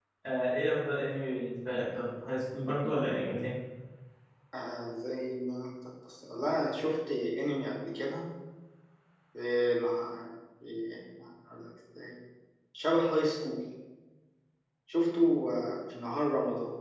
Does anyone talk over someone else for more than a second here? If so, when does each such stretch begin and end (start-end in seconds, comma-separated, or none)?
none